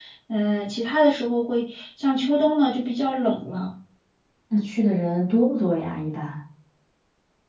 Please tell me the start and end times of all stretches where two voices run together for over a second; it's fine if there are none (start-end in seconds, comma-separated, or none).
none